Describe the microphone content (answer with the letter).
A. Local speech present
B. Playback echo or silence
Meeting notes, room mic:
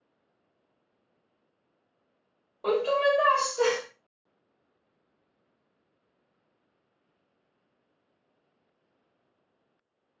A